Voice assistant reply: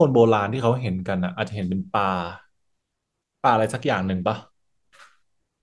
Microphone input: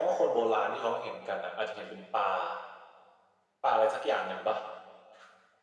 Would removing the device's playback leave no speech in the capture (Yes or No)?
Yes